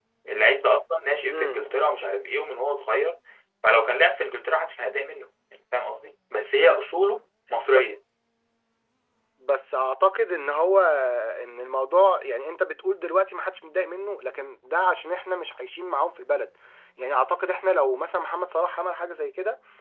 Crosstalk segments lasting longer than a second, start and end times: none

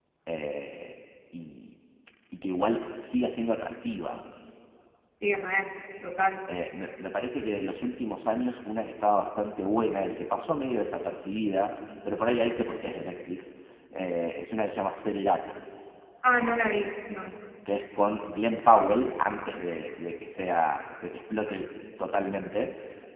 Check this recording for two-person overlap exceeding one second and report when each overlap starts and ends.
none

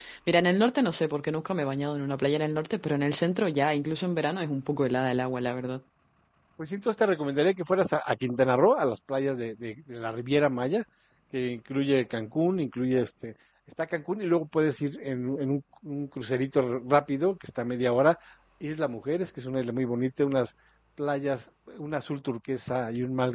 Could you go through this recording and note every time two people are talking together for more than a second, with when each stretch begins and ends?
none

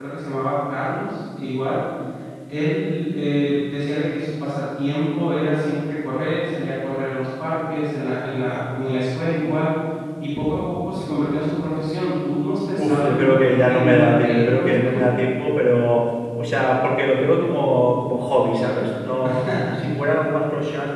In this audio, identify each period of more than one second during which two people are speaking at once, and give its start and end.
12.8-15.1

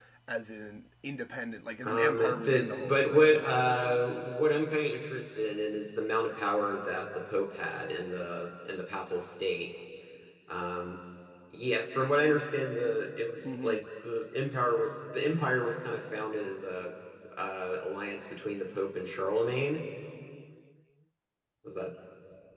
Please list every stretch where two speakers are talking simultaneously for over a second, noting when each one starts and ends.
1.8-3.8

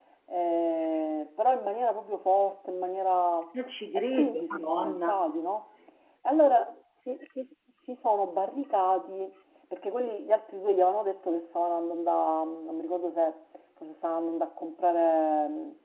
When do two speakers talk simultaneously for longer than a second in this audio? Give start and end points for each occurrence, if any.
4.0-5.2

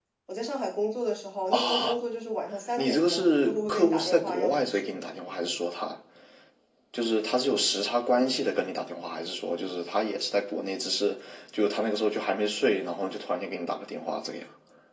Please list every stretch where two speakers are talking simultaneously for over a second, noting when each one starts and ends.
2.8-5.0

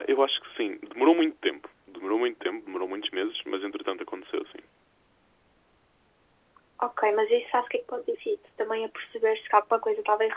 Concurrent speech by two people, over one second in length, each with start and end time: none

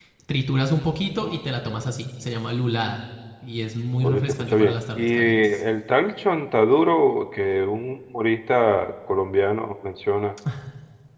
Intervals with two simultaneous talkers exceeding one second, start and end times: 4.0-5.6

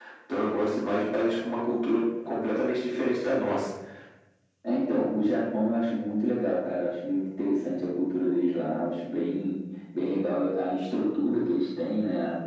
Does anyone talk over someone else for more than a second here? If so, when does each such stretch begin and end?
none

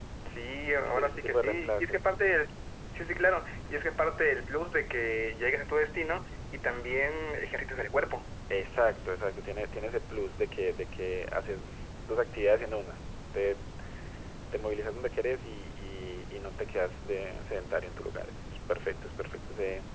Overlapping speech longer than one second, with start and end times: 0.9-2.1

